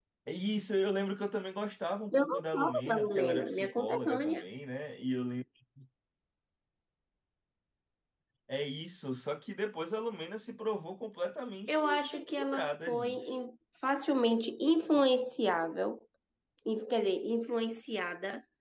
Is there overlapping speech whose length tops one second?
Yes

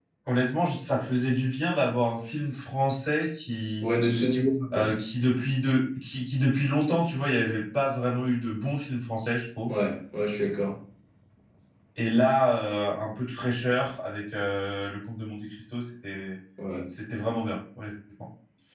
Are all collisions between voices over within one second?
Yes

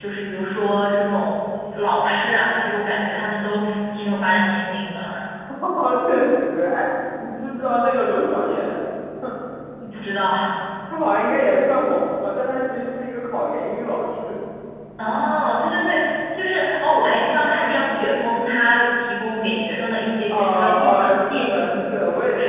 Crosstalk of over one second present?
Yes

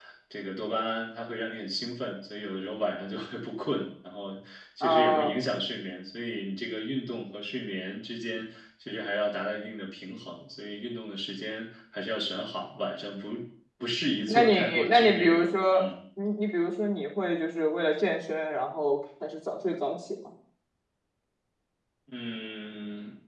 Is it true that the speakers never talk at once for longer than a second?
No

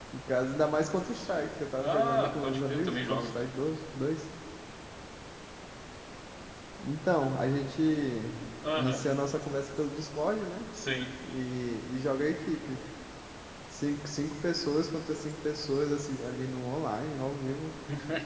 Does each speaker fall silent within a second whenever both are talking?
No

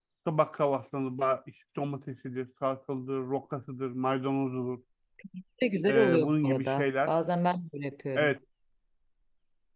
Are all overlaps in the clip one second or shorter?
No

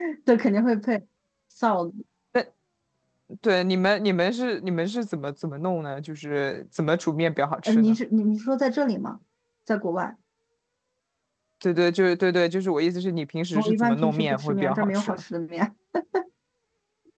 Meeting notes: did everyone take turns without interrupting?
No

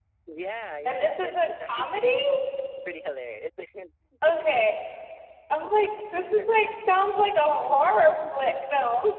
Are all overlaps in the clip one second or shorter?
No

